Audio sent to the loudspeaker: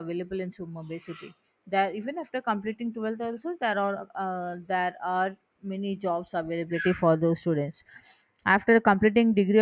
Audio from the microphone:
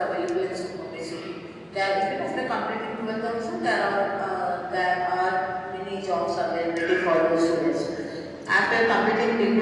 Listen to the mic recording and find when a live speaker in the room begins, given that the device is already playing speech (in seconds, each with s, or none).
none